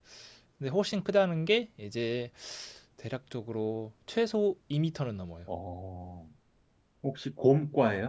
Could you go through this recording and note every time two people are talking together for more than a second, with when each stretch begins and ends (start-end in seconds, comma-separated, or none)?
none